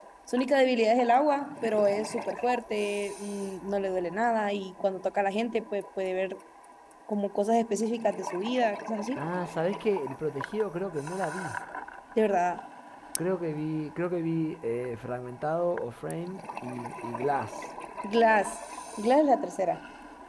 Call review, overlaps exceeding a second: none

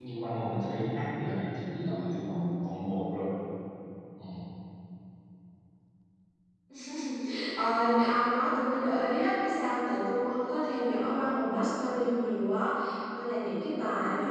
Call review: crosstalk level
none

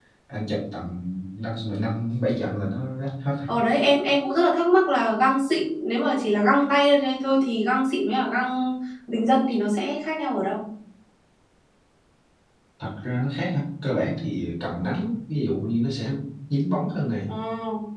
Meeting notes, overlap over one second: none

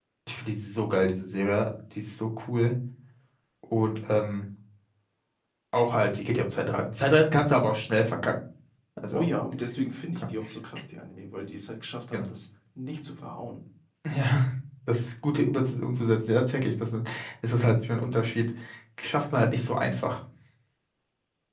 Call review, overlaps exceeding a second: none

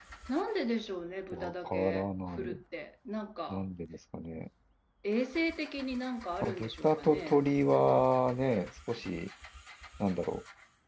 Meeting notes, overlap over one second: present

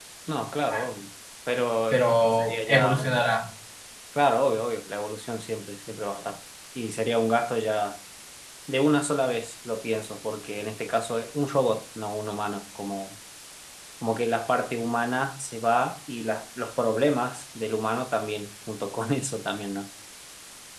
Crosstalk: present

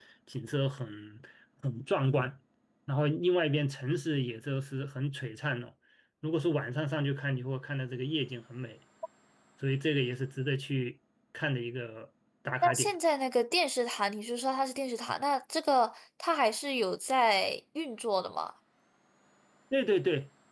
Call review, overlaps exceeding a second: none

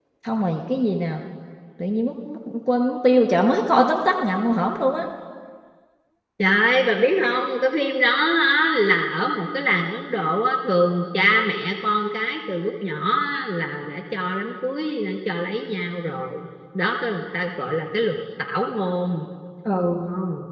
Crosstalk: none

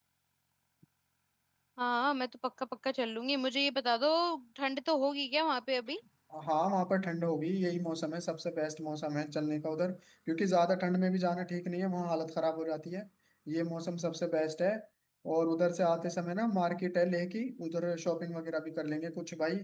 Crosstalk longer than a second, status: none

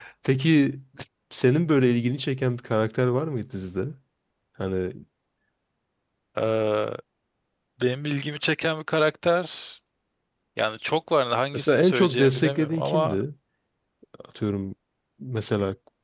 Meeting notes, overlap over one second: present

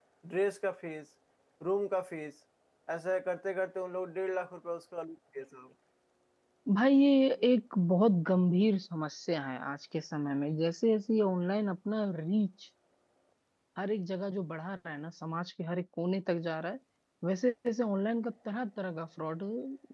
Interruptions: none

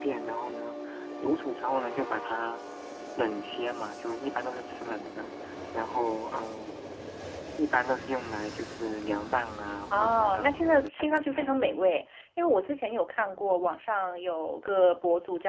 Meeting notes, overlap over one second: present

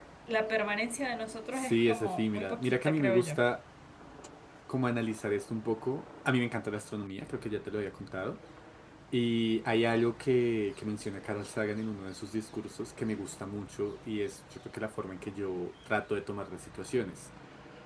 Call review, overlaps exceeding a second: present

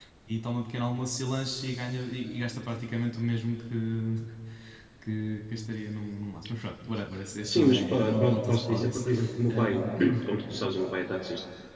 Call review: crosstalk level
present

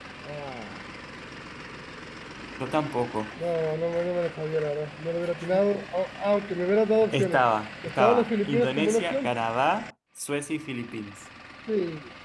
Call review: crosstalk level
present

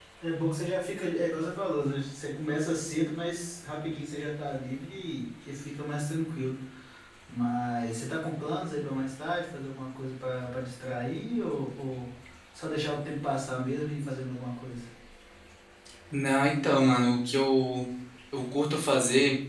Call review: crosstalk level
none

